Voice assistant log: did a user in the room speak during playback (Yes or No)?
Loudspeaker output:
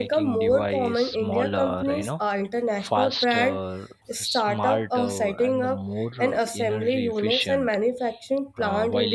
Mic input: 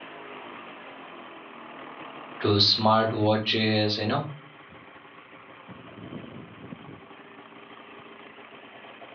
Yes